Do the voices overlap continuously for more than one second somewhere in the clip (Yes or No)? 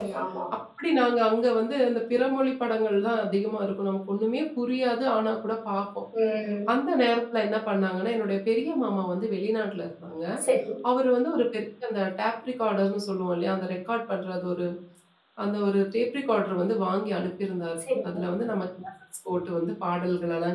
No